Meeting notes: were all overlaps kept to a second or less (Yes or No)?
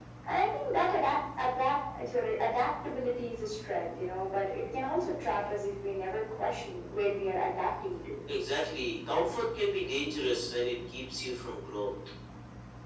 Yes